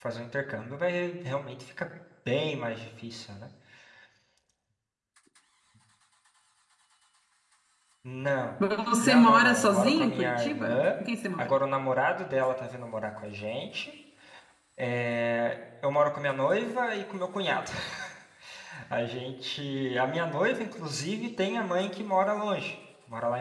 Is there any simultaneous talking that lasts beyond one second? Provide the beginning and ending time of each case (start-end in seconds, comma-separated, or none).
9.0-10.9